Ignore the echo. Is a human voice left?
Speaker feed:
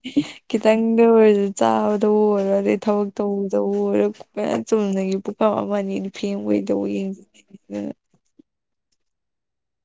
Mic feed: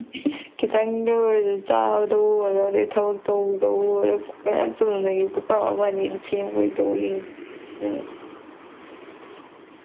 No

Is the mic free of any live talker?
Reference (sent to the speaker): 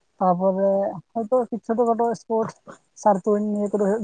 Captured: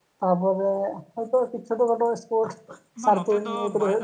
No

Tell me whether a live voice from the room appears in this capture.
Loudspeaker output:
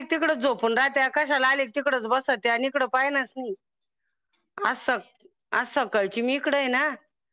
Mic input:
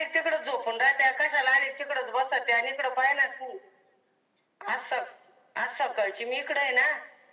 No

